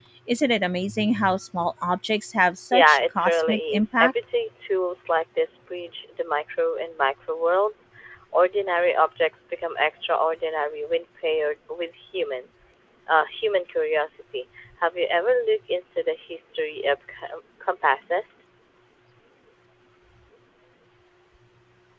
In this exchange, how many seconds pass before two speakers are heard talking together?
2.7 s

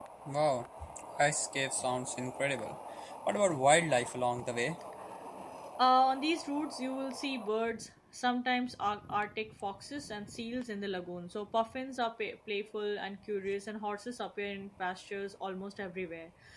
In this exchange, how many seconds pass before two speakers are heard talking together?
none

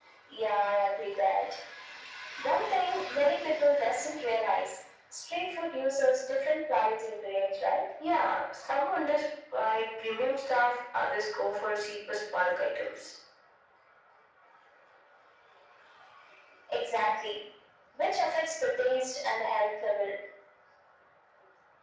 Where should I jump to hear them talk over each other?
none

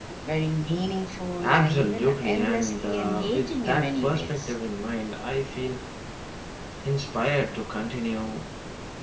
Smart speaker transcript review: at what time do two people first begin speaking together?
1.4 s

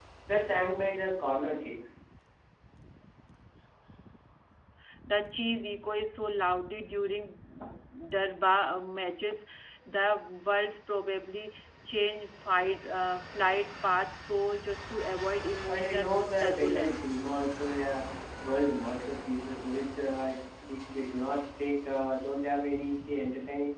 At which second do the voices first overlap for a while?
15.7 s

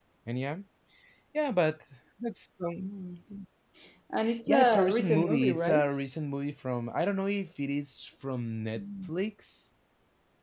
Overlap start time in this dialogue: 4.5 s

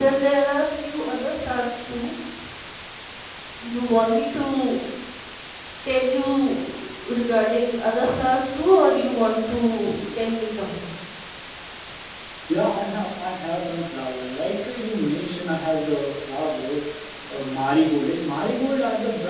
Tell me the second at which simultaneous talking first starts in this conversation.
none

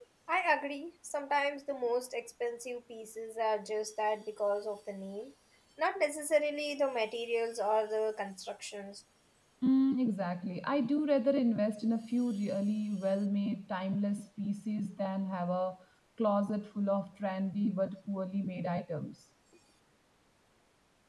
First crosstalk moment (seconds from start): none

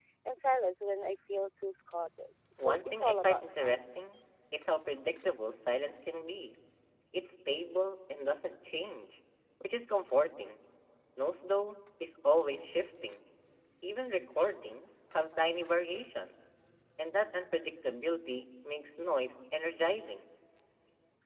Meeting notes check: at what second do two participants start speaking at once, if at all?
2.6 s

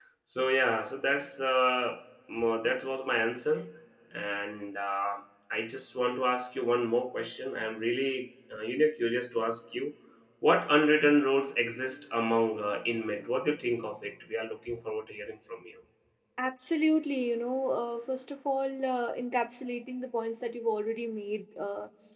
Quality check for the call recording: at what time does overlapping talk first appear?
none

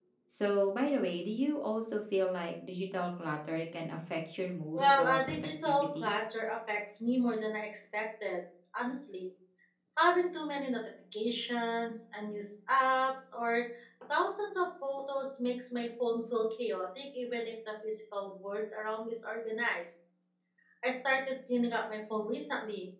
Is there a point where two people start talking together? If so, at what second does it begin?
4.7 s

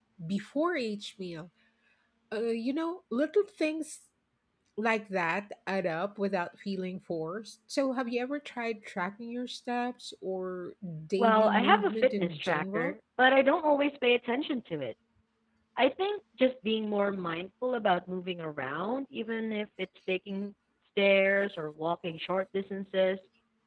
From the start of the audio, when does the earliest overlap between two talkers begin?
11.2 s

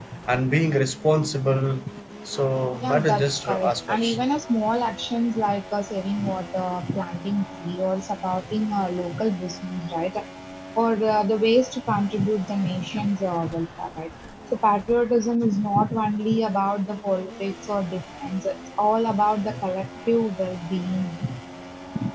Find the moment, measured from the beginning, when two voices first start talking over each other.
2.8 s

